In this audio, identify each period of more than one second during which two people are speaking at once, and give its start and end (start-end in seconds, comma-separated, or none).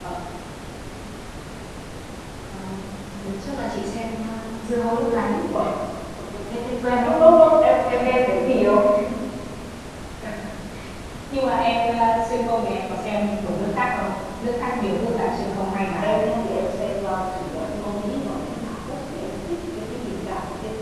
none